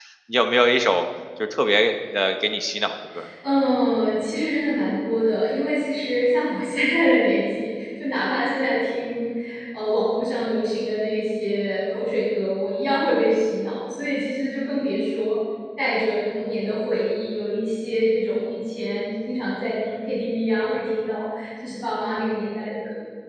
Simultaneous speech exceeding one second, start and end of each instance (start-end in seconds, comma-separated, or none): none